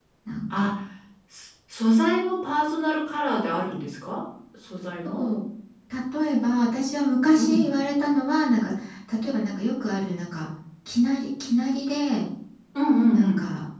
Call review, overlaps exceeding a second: none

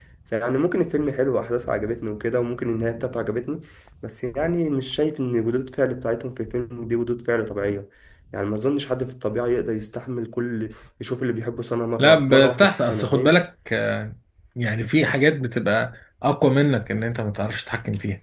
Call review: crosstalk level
present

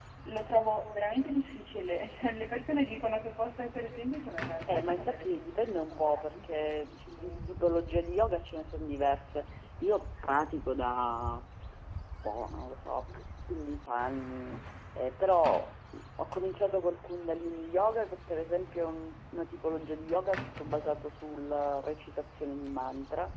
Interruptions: present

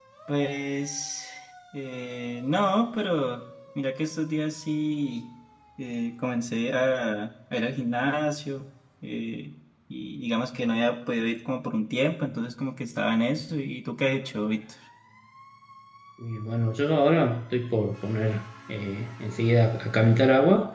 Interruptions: none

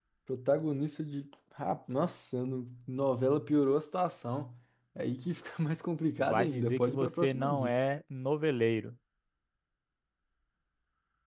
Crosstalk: present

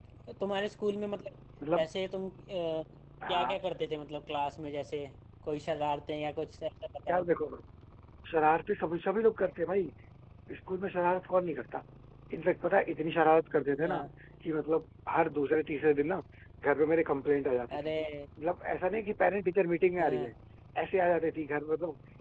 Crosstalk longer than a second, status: none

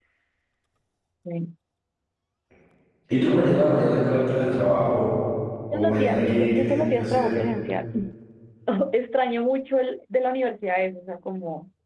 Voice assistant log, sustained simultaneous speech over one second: present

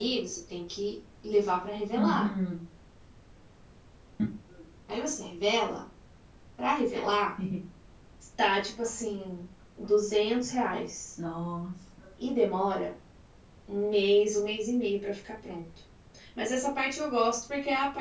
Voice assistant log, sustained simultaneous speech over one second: none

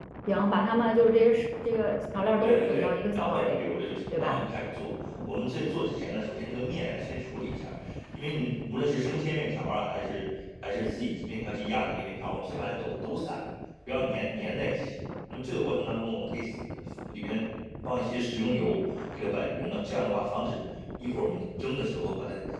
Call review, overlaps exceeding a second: present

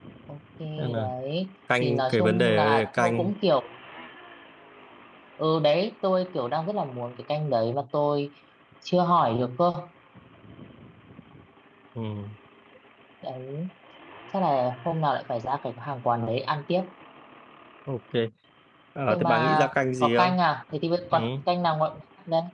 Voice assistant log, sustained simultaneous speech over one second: present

